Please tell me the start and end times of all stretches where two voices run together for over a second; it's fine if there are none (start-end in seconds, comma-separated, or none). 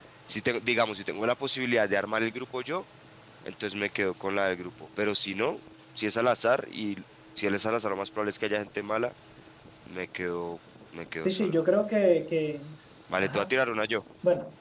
none